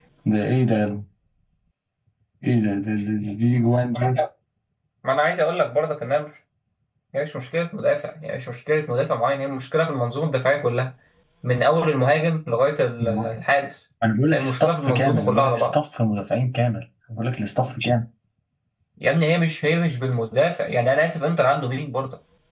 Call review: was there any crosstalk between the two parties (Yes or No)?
Yes